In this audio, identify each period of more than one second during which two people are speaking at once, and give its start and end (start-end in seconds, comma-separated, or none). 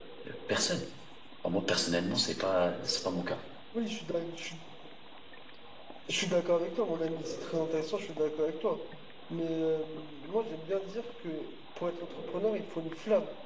none